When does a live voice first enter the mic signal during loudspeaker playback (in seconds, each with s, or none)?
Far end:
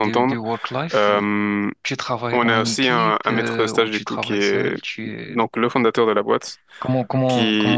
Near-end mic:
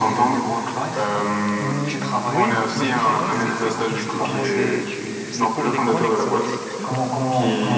1.5 s